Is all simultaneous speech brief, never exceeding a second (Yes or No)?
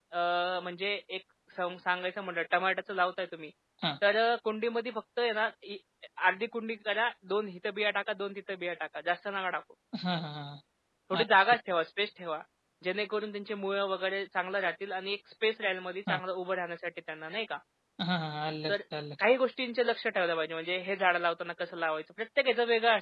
Yes